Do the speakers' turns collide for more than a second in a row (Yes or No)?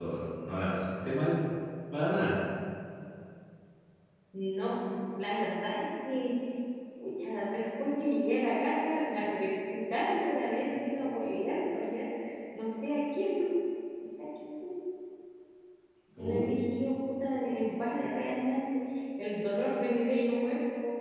No